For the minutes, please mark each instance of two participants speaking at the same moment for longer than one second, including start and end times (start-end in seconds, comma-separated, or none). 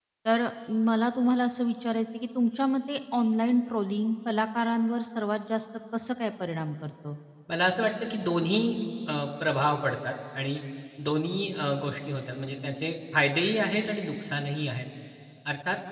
none